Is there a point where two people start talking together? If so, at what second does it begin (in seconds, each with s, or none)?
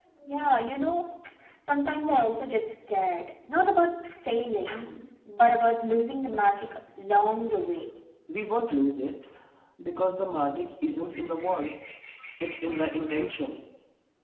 none